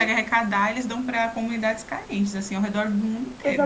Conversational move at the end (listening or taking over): taking over